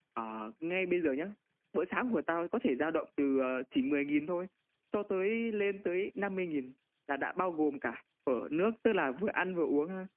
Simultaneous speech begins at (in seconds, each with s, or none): none